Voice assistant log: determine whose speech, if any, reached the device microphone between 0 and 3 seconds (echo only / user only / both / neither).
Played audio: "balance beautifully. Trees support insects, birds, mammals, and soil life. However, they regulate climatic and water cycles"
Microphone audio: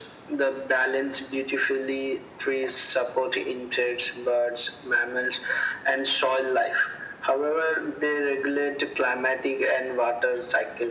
echo only